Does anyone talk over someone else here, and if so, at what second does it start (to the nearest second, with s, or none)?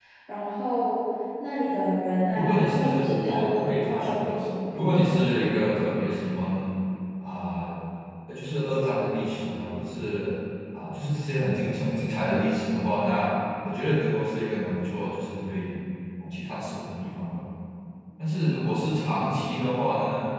2 s